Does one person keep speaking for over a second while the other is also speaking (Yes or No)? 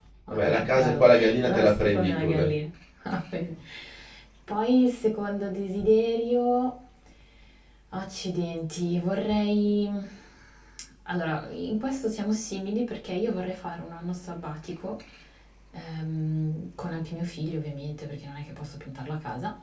Yes